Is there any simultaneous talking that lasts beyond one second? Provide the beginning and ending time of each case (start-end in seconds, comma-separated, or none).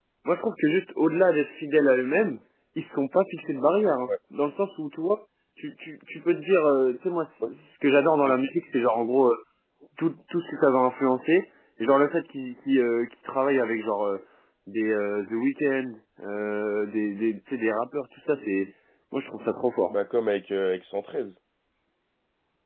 none